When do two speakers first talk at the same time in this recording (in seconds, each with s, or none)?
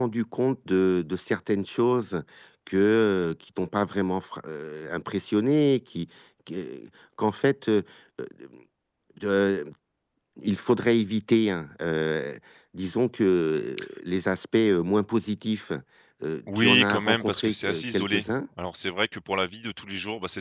16.6 s